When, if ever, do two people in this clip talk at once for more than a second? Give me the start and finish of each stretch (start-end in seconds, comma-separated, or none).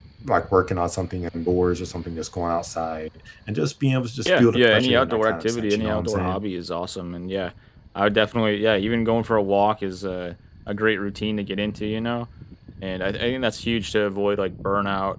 4.3-6.4